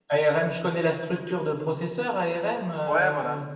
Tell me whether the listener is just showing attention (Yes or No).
No